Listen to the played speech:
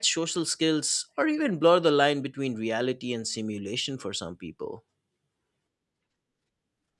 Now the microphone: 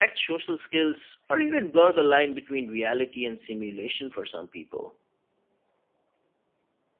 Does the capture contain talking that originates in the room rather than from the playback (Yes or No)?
No